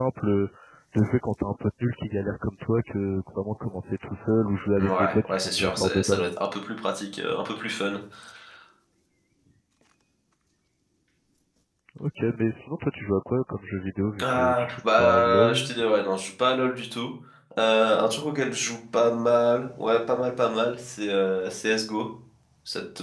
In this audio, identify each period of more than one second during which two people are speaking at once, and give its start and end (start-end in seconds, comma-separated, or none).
4.8-6.3, 14.2-15.7